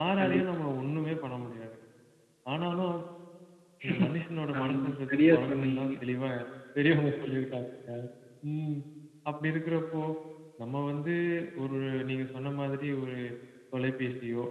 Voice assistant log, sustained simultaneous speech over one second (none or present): present